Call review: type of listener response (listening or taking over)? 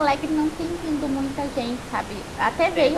listening